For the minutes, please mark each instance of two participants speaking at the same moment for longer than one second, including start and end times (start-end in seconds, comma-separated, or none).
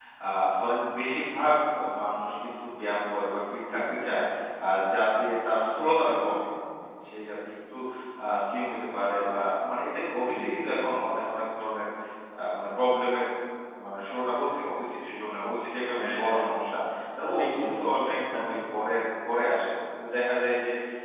17.3-18.5